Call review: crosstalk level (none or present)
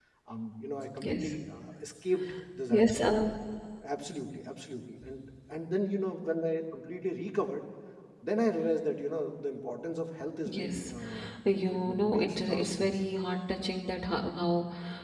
present